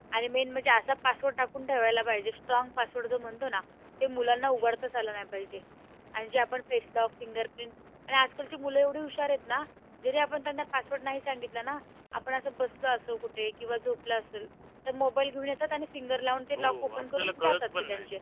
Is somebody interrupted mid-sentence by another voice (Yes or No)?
Yes